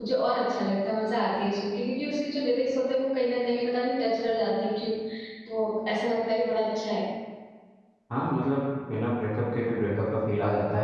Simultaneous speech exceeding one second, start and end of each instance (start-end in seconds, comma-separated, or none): none